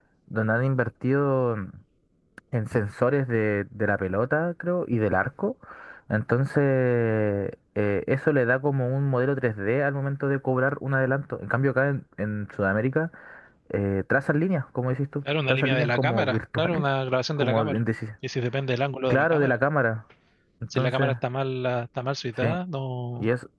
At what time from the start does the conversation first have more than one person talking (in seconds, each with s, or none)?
15.5 s